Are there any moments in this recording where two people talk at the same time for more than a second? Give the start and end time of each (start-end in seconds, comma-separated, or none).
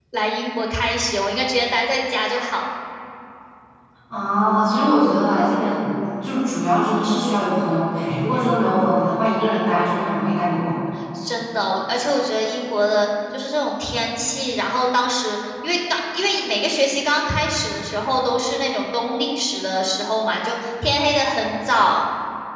none